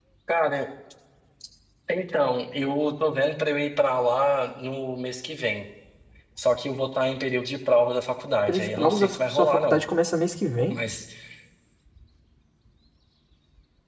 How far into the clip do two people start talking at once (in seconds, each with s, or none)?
8.5 s